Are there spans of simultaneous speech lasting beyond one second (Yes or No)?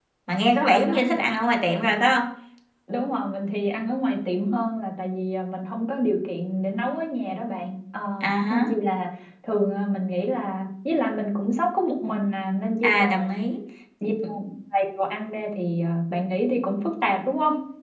No